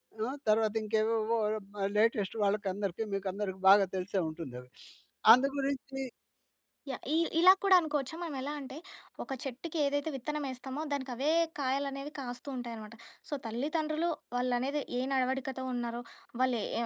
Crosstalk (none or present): none